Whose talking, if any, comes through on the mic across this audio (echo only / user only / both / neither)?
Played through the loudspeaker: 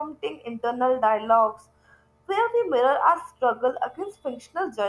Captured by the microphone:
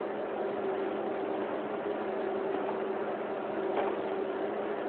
neither